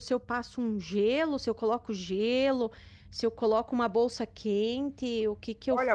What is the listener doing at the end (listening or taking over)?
taking over